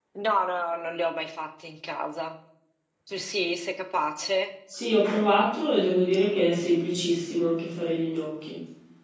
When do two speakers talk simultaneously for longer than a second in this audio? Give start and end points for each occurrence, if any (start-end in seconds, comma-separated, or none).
none